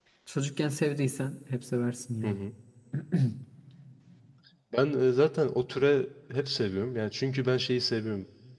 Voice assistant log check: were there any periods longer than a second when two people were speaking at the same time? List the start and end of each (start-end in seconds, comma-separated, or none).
none